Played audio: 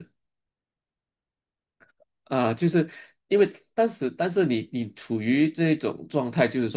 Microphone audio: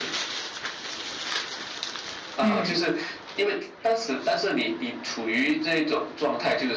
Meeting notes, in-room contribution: present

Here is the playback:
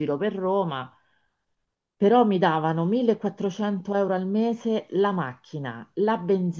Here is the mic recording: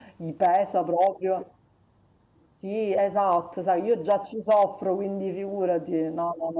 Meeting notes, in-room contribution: present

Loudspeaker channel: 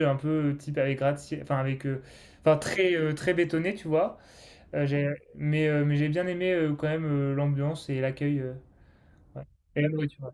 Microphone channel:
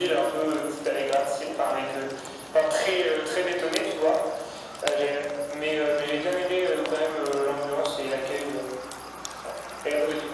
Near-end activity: none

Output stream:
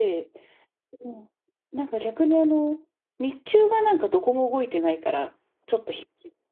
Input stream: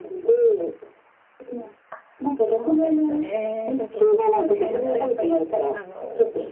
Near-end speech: present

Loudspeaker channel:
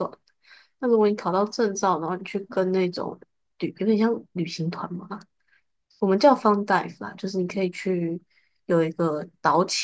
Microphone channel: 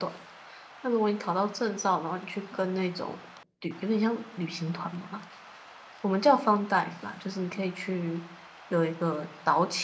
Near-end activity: none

